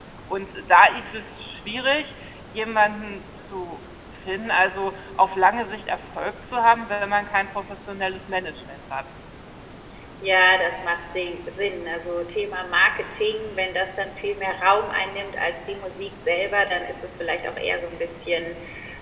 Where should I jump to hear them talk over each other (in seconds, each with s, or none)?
none